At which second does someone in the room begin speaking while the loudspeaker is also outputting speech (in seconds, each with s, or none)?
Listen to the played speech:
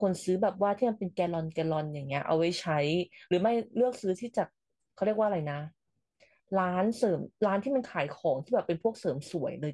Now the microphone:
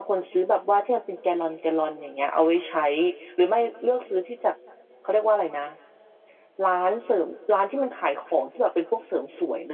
none